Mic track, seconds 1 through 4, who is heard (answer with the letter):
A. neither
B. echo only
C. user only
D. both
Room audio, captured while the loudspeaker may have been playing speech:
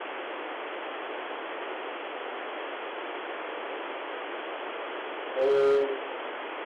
A